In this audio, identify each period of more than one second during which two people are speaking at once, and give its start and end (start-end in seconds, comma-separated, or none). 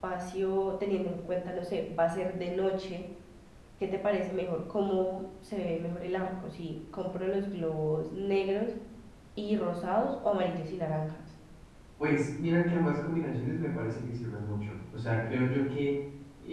none